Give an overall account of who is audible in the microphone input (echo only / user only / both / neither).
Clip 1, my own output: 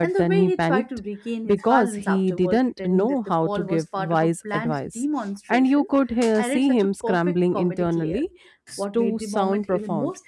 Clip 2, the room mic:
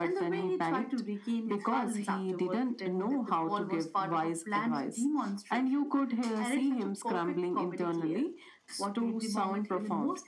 echo only